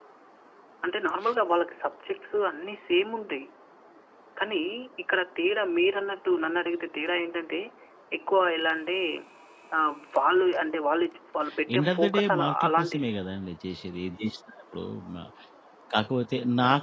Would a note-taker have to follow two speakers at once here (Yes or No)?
Yes